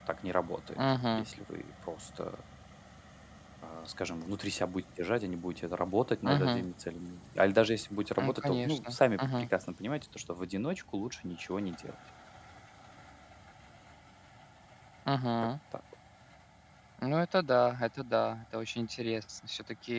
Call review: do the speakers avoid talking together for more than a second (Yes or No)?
No